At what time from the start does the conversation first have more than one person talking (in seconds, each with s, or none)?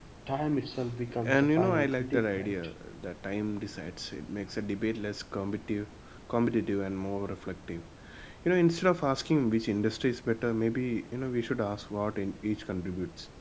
1.2 s